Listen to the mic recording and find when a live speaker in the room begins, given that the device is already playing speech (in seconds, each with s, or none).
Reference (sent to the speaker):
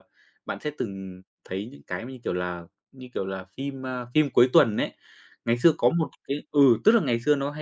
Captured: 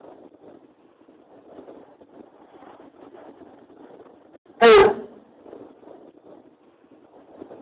4.6 s